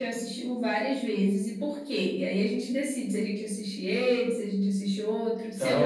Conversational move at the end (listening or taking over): taking over